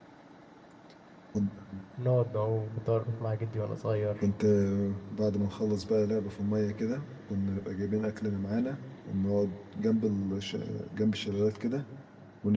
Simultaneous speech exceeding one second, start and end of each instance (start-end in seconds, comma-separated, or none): none